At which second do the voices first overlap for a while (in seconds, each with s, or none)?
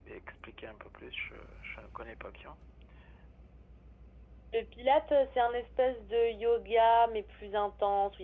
none